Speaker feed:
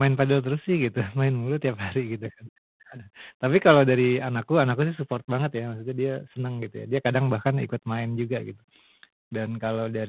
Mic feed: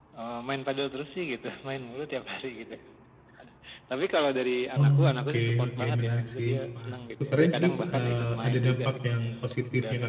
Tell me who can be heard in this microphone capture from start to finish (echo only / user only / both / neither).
both